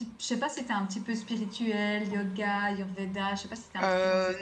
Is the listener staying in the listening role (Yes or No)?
No